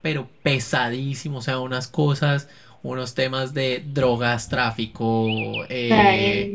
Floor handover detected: No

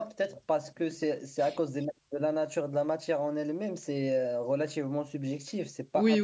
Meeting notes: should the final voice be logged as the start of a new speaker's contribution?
Yes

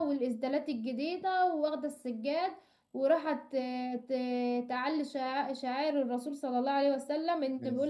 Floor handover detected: No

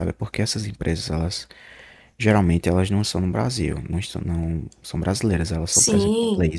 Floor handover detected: No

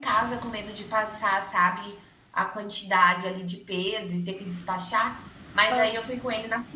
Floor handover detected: No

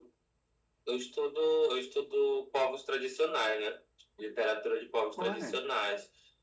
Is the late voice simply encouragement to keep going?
Yes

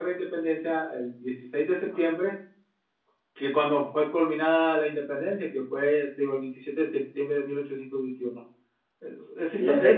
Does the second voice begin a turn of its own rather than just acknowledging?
No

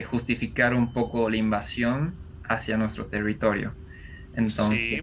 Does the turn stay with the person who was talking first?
No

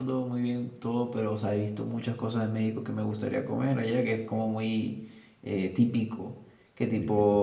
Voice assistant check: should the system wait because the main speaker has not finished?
Yes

